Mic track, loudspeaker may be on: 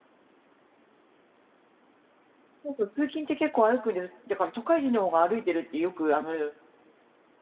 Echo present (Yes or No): No